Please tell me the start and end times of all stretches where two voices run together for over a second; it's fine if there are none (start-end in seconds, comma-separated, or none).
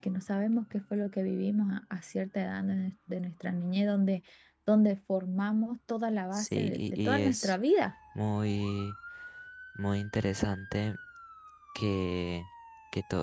6.3-7.5